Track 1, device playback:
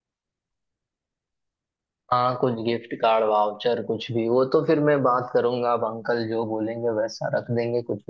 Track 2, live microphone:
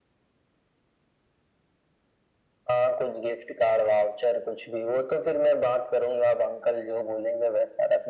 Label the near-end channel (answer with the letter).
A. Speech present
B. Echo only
B